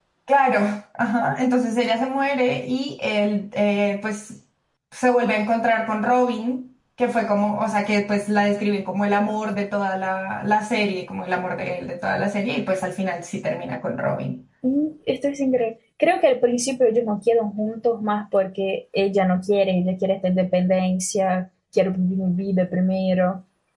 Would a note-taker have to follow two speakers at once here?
No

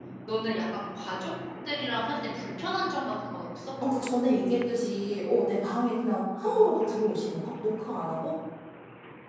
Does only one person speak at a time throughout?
Yes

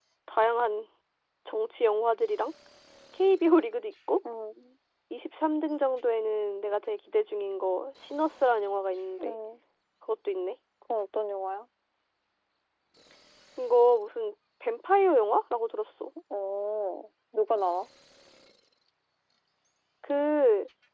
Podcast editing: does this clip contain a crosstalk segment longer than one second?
No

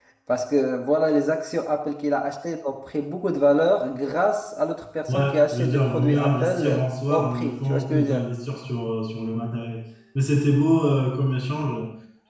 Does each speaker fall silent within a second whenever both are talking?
No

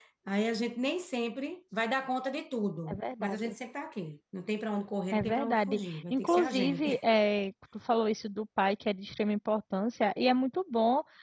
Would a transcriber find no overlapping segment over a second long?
No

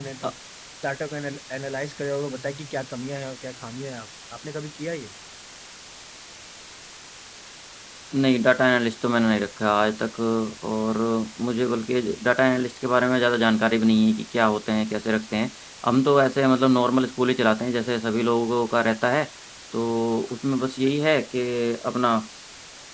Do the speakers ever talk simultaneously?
No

